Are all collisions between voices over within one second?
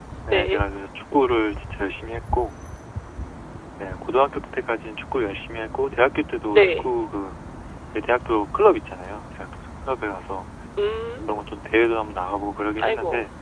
Yes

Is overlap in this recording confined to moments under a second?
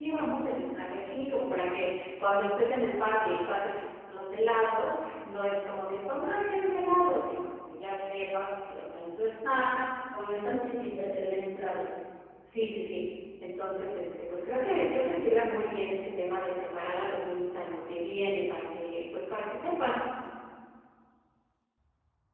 Yes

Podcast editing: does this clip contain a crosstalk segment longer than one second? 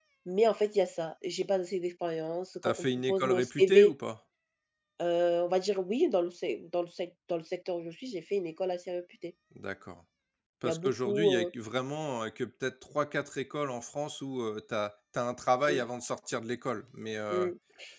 Yes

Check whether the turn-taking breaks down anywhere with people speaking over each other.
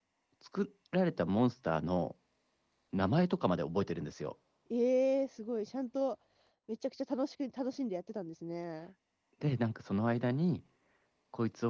No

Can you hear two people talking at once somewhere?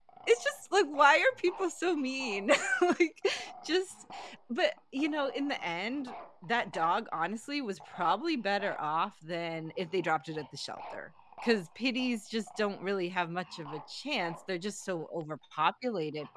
No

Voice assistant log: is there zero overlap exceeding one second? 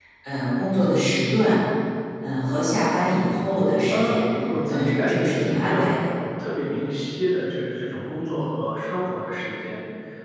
No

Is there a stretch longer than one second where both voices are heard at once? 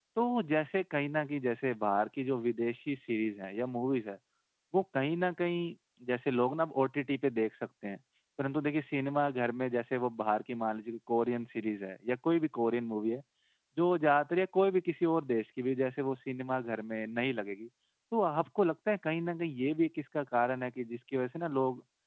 No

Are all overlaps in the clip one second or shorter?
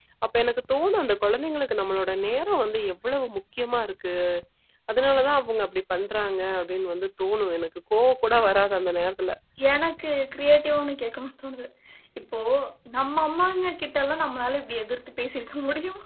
Yes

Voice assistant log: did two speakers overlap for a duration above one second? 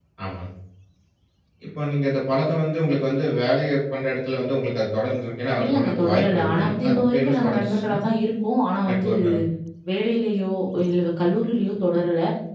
Yes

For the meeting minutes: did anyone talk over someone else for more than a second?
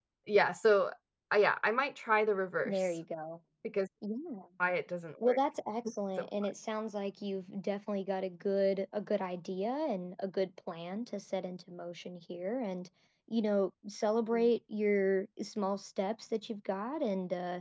No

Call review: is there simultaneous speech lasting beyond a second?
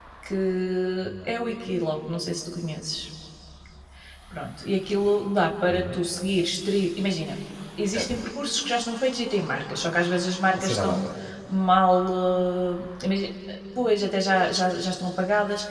No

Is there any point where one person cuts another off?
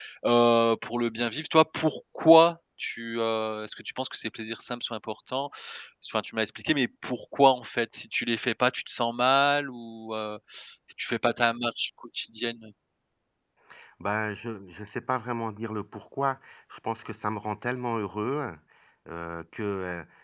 No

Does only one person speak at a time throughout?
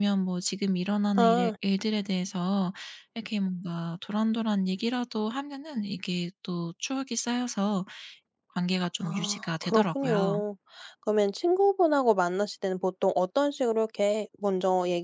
No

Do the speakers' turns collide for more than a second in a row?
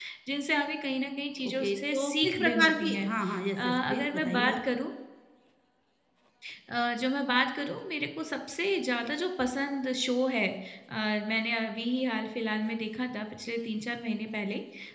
Yes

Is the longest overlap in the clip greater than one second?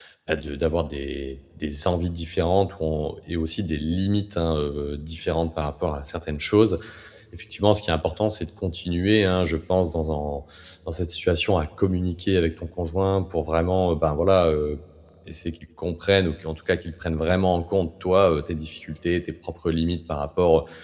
No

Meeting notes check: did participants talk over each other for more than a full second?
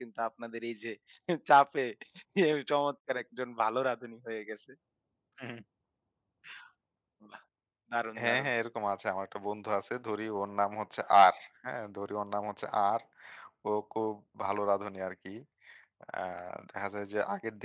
No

